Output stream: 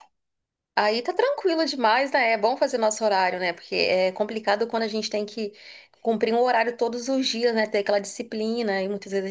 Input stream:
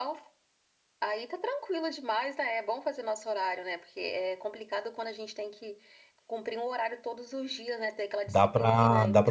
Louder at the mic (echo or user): user